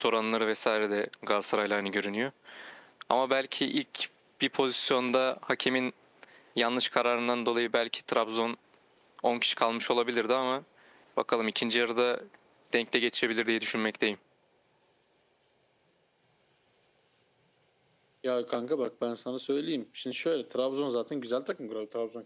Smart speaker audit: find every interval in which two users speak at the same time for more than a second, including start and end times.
none

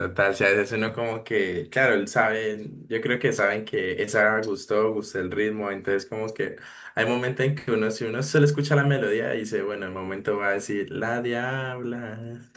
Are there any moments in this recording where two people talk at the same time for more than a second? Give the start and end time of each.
none

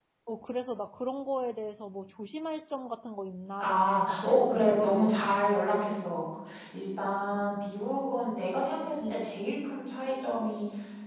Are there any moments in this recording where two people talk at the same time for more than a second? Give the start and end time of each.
3.6-5.2

